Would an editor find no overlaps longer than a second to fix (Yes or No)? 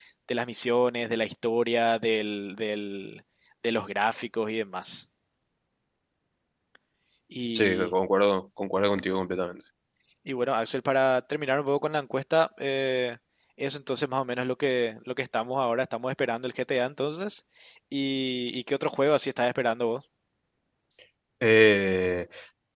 Yes